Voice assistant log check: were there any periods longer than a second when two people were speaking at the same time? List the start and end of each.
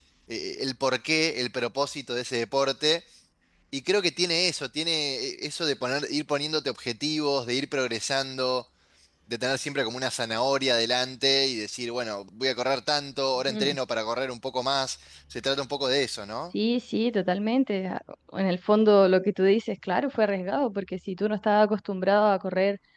none

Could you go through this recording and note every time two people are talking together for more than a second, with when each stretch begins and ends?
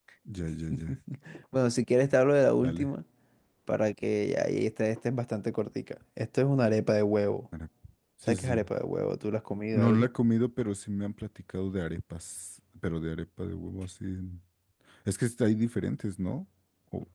none

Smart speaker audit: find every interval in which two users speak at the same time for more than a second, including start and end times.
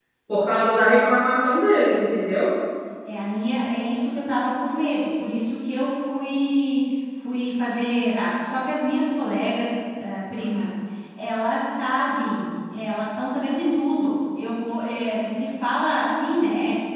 none

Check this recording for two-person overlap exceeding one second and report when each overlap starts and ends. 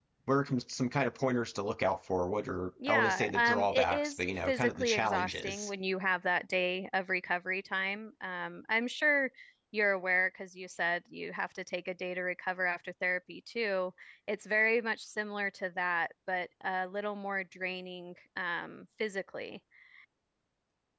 2.9-5.7

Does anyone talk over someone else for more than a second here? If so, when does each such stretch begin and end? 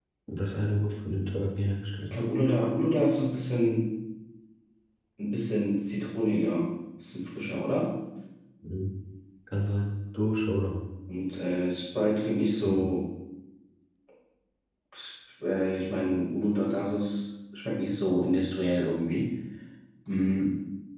none

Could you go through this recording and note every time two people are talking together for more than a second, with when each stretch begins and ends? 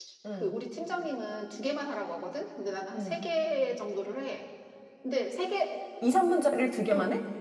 none

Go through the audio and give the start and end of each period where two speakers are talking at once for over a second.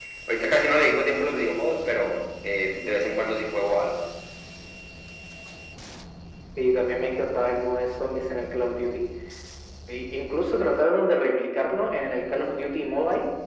none

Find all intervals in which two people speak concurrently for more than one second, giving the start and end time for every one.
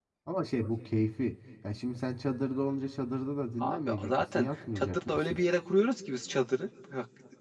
3.6-5.4

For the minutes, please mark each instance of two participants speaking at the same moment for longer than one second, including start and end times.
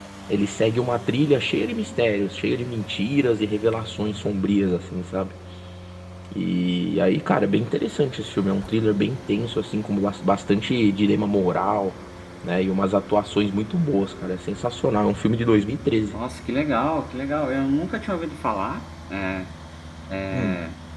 none

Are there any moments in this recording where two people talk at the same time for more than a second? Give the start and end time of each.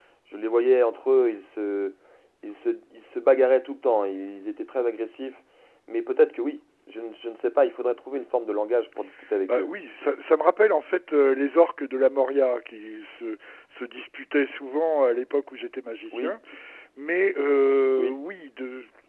none

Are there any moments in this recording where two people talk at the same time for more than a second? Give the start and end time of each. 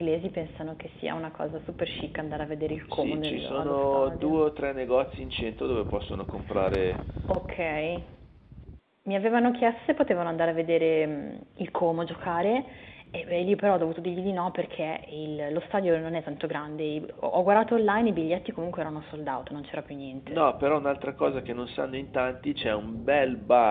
2.9-4.3

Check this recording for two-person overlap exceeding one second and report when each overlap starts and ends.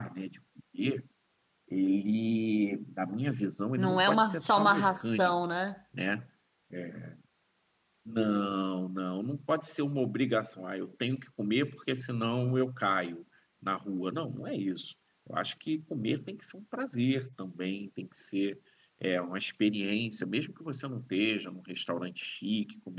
3.8-5.4

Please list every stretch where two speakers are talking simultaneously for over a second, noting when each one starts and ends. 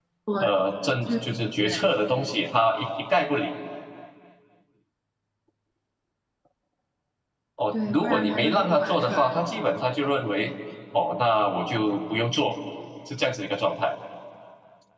7.7-9.5

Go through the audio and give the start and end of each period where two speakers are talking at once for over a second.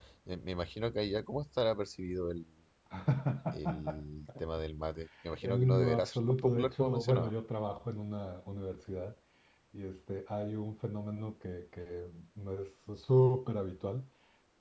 5.4-7.3

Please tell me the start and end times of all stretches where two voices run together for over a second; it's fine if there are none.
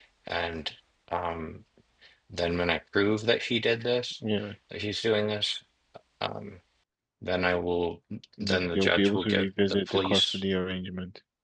8.4-10.4

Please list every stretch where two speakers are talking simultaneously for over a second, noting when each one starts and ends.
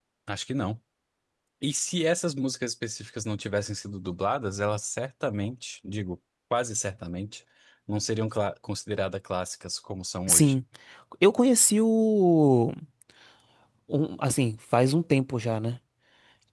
none

